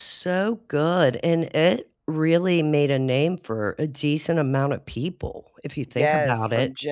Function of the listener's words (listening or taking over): taking over